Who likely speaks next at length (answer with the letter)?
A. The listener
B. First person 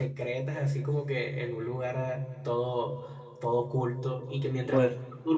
B